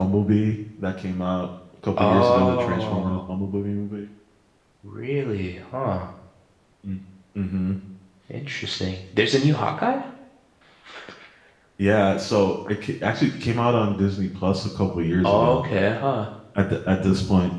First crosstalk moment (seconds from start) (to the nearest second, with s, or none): 2 s